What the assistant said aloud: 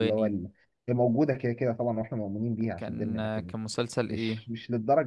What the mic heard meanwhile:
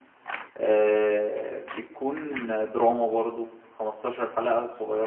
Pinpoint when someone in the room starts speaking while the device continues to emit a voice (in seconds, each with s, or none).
0.6 s